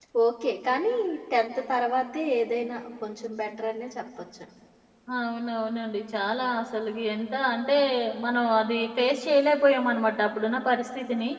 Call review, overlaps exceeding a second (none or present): none